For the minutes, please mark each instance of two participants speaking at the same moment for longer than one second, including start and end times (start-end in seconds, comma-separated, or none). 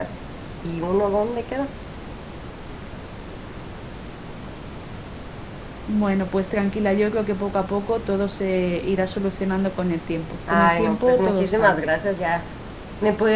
10.5-11.8